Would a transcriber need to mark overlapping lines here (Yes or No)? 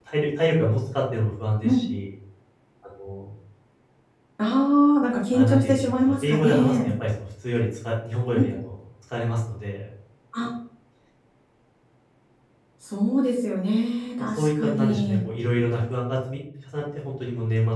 Yes